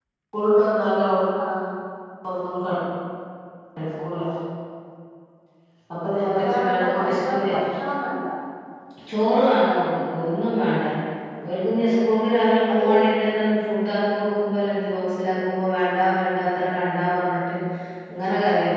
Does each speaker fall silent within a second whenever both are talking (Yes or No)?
No